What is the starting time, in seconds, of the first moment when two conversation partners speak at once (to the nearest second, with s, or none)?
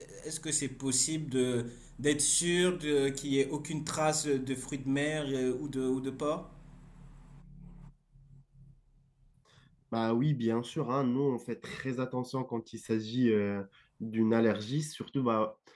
none